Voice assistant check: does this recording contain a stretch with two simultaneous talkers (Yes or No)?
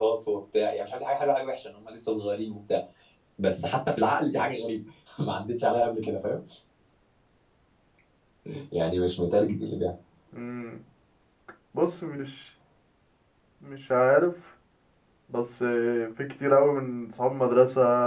No